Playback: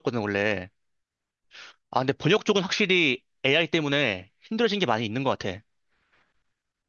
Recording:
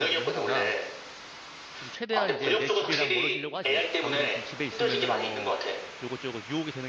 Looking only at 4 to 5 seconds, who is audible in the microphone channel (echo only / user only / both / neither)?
both